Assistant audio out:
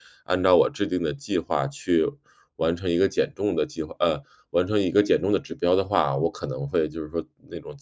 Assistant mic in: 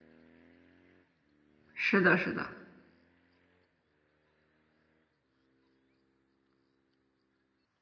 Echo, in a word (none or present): none